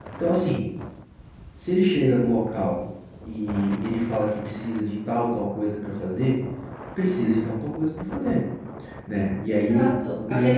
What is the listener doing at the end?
taking over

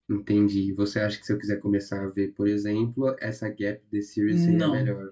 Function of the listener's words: taking over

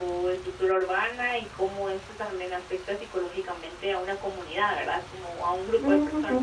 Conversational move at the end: taking over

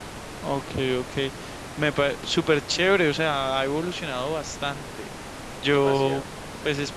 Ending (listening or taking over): listening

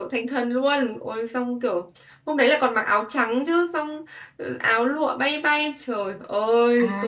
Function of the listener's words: taking over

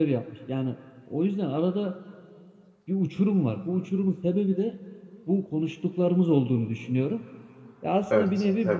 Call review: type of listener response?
listening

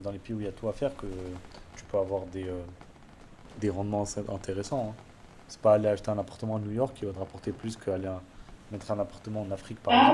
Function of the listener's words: taking over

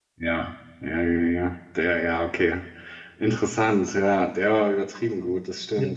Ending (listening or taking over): taking over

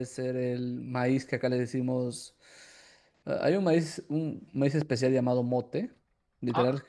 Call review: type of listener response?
listening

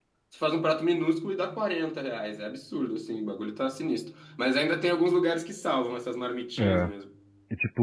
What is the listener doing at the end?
taking over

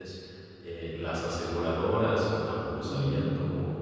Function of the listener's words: listening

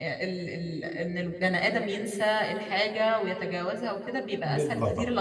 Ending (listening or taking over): listening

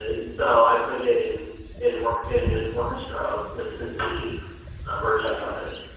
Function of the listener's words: taking over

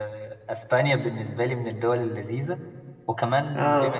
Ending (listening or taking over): listening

